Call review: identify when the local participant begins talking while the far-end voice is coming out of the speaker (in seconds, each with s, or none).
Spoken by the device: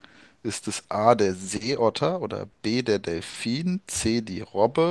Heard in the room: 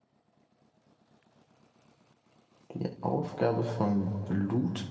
2.7 s